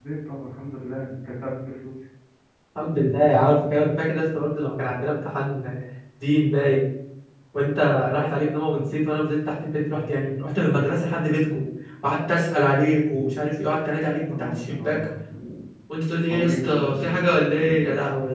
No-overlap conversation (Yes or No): No